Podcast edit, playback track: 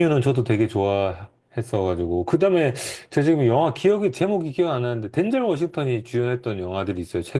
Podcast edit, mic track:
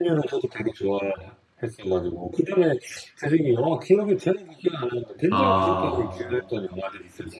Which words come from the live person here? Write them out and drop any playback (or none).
아.